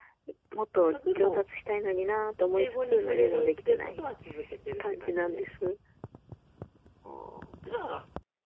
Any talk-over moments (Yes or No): Yes